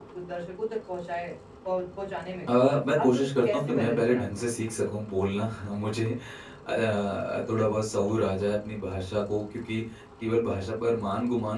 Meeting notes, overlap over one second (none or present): present